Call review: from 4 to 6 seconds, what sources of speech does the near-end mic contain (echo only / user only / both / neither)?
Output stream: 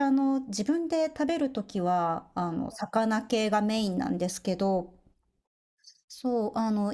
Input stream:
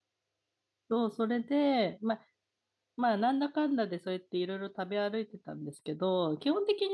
user only